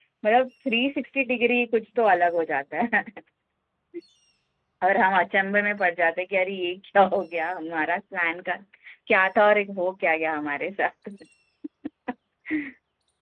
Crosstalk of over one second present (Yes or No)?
No